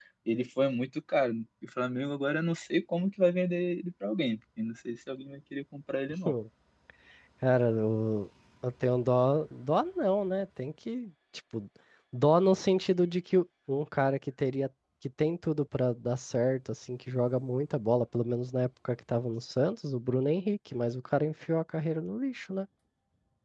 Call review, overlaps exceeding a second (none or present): none